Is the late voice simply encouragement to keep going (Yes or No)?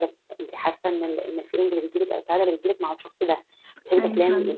Yes